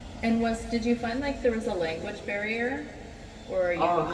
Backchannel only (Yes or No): No